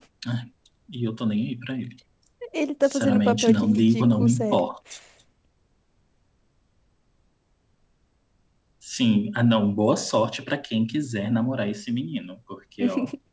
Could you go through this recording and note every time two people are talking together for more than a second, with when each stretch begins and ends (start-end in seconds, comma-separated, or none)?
2.8-4.6